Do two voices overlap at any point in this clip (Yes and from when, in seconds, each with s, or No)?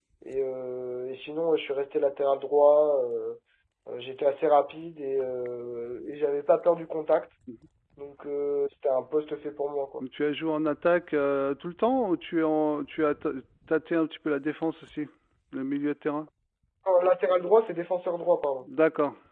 No